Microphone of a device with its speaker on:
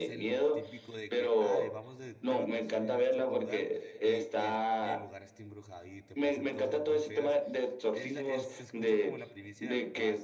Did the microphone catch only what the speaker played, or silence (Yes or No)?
No